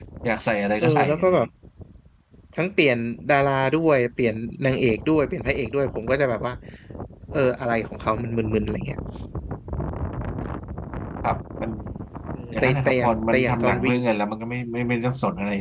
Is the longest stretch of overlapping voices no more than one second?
No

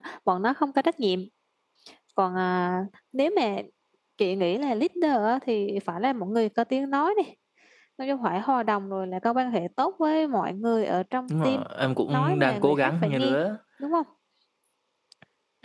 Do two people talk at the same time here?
Yes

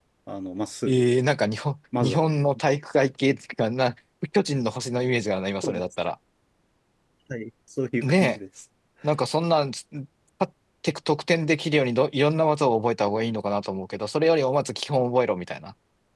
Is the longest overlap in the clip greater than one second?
No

